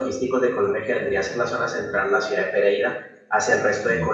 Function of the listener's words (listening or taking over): listening